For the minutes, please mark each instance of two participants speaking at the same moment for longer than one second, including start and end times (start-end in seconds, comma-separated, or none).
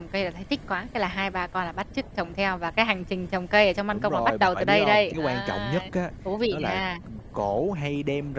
3.9-5.8